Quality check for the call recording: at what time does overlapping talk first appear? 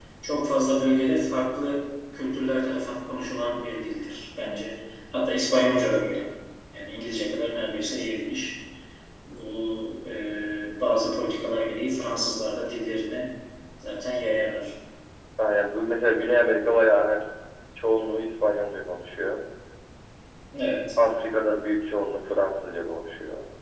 none

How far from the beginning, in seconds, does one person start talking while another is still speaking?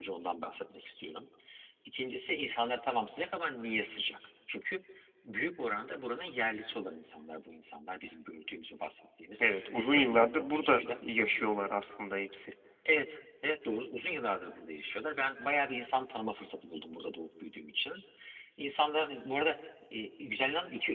9.4 s

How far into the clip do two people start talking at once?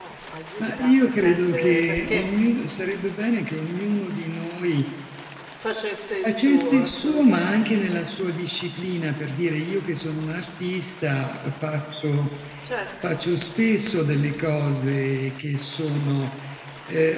0.6 s

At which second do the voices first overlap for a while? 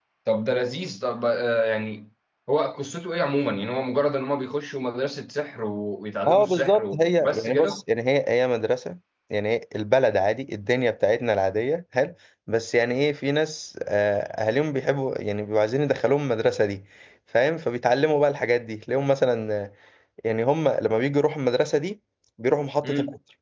6.3 s

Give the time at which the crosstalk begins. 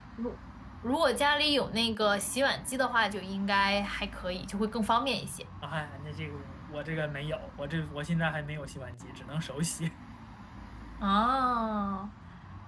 none

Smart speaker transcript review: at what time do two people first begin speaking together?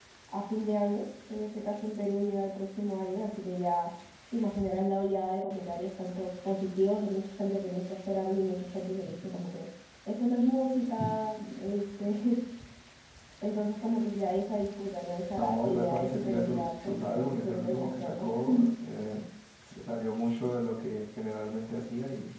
15.4 s

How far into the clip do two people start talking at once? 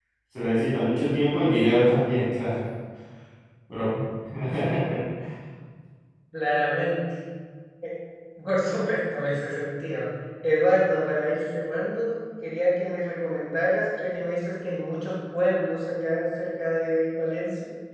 none

